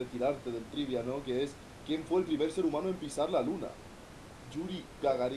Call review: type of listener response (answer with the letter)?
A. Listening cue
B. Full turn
A